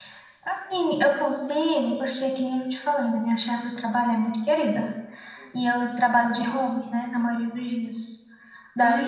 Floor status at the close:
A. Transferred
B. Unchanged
B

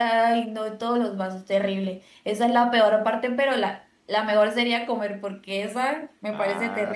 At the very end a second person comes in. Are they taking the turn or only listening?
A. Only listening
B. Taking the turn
B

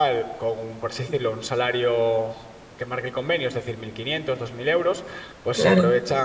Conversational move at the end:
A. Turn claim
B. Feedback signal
B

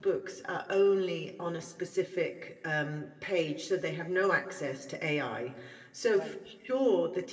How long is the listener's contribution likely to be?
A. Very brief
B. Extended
A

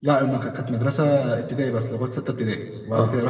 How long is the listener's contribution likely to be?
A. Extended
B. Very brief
B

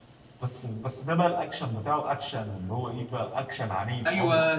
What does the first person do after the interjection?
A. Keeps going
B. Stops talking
B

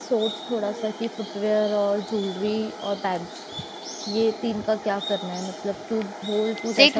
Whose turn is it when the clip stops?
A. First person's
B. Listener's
B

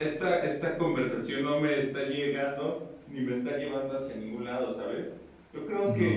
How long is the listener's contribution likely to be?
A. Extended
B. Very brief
B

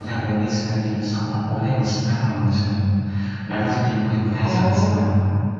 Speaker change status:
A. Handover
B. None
A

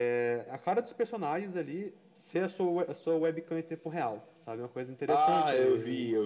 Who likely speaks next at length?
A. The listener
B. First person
A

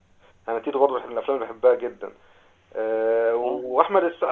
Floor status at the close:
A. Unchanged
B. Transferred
A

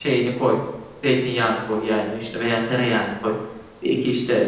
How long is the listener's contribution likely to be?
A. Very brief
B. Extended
A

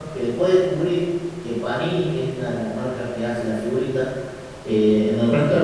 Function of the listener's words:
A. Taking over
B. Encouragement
B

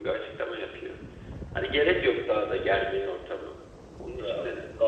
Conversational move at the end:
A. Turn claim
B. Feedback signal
A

